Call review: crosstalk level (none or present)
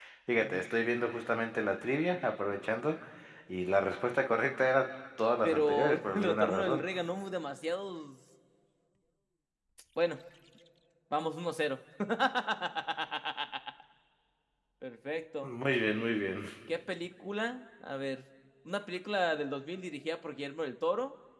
present